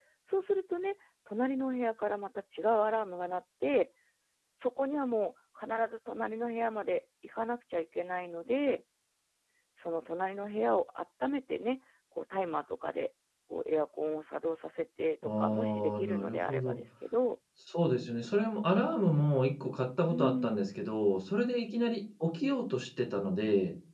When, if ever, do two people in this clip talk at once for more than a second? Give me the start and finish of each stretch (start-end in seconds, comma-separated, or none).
15.4-16.8